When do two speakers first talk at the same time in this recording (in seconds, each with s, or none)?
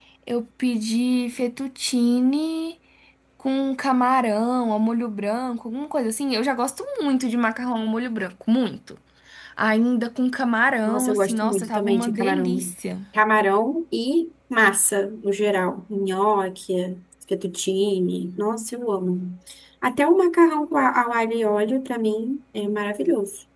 10.8 s